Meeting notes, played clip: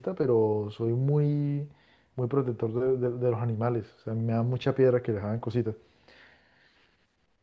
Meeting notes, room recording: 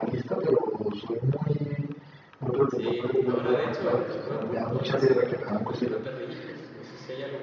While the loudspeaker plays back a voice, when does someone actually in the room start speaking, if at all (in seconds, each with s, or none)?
2.6 s